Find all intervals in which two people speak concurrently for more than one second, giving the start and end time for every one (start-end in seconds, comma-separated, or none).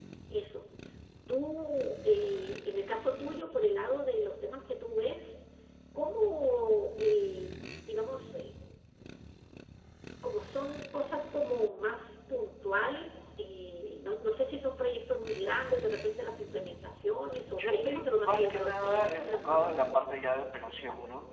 17.4-19.8